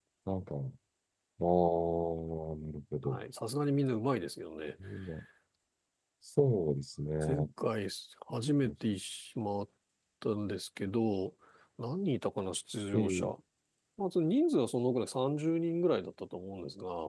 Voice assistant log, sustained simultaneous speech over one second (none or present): none